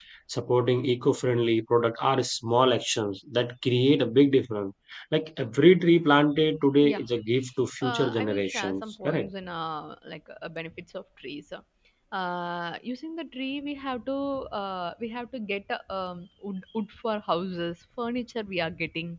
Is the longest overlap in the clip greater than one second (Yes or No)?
Yes